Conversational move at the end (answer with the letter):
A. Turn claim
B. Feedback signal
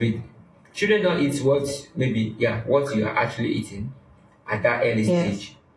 B